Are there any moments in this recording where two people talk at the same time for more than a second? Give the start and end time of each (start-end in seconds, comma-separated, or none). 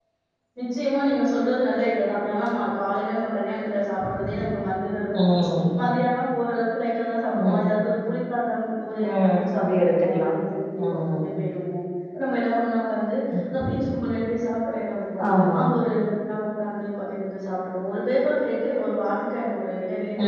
9.1-10.3